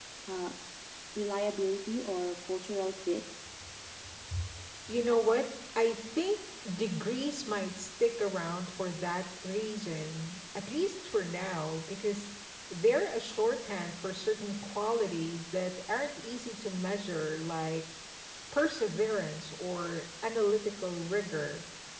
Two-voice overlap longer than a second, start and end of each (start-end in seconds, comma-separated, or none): none